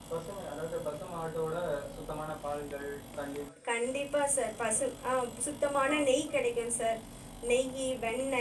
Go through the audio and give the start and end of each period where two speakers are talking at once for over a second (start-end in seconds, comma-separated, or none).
none